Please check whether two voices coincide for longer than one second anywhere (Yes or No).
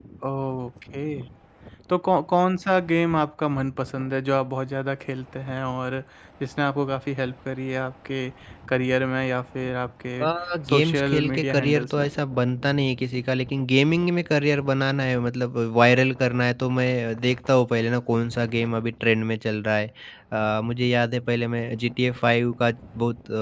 Yes